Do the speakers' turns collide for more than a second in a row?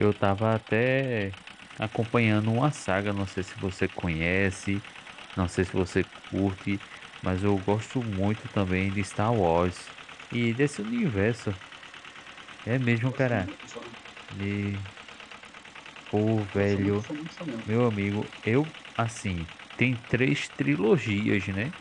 No

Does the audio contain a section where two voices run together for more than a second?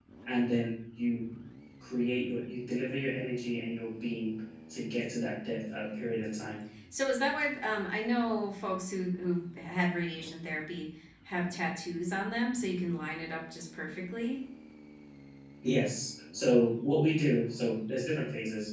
No

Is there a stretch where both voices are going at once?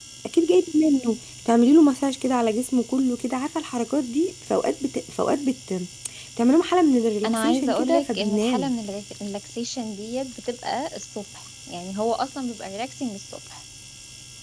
Yes, from 7.2 s

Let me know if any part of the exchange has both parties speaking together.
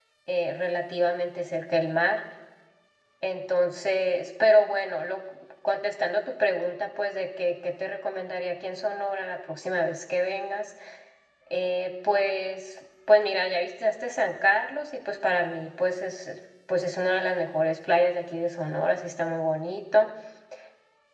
No

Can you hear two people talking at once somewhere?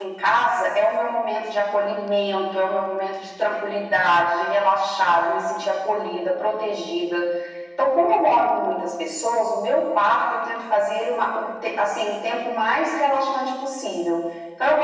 No

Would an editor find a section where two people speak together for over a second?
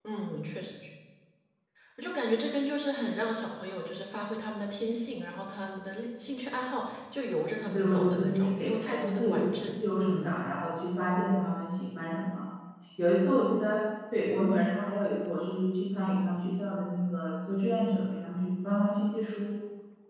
Yes, from 7.6 s

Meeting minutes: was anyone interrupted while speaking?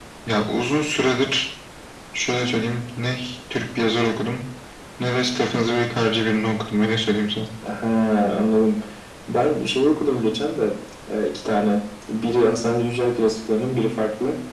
No

